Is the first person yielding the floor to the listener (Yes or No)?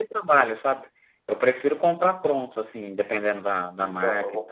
Yes